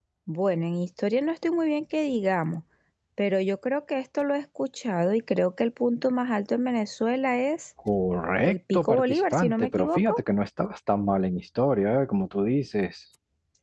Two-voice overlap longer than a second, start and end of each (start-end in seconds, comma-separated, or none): 8.4-10.2